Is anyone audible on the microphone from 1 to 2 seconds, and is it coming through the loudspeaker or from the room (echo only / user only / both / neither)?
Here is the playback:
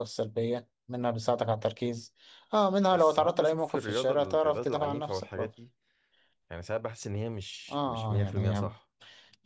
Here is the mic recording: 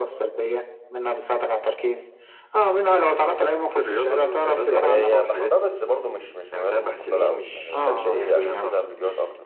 echo only